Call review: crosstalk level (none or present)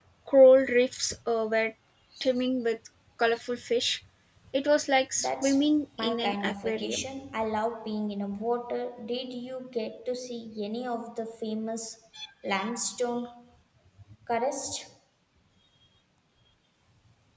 present